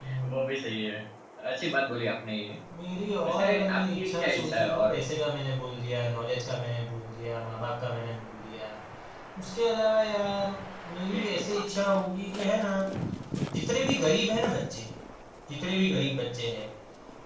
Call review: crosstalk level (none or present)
present